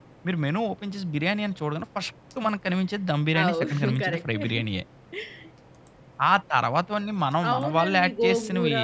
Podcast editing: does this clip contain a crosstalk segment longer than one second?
Yes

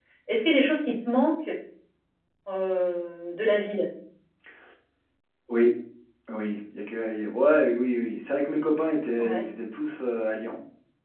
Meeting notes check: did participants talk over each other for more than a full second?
No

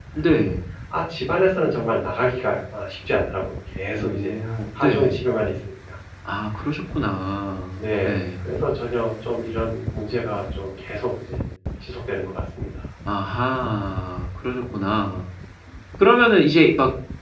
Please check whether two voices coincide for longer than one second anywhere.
Yes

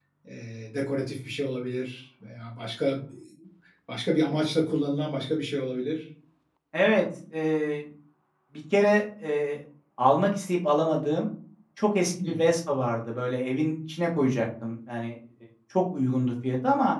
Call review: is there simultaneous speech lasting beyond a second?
No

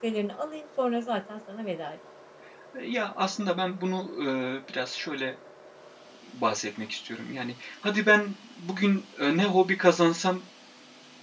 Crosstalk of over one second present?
No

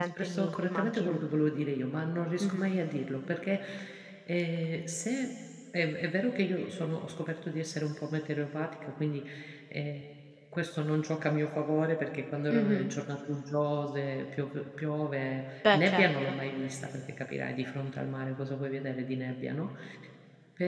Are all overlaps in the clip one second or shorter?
No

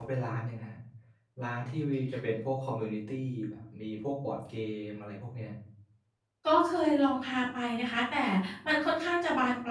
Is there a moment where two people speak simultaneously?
No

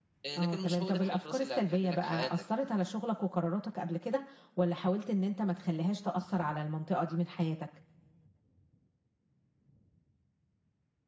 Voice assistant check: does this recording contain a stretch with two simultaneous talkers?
Yes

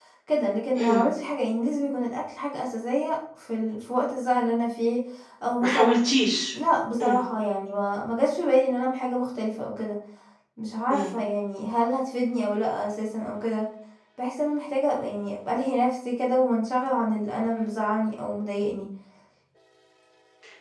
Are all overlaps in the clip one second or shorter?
Yes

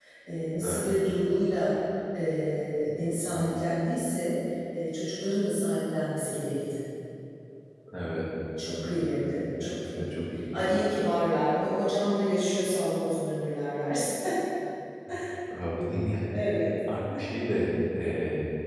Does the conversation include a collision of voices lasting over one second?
Yes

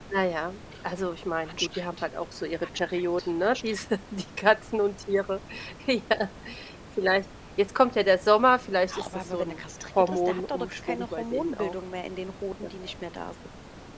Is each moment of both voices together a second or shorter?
No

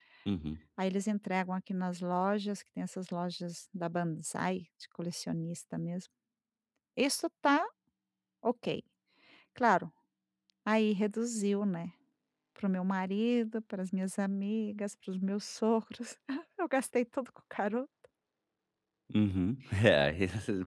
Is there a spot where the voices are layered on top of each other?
No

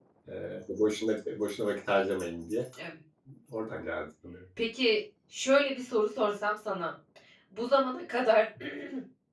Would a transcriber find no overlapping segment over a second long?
Yes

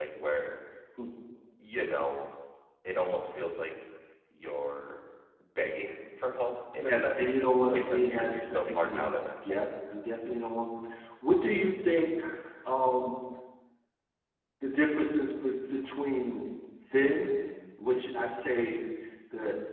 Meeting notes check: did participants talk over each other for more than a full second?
Yes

